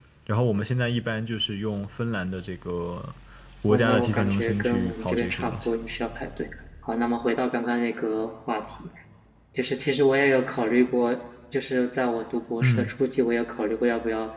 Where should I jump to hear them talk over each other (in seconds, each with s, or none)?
3.7 s